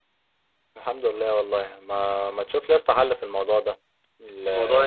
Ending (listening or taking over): listening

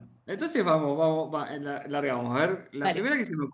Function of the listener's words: listening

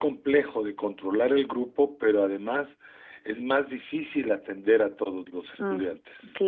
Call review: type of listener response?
taking over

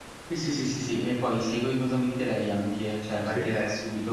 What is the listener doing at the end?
listening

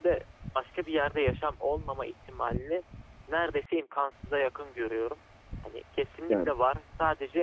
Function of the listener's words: listening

